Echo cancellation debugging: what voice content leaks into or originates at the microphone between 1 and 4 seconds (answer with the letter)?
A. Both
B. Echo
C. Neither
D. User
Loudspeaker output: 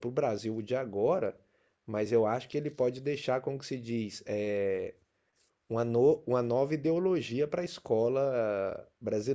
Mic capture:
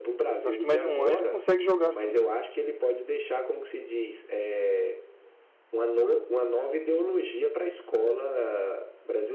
A